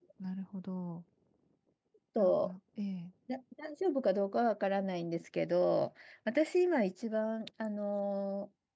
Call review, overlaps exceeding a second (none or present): none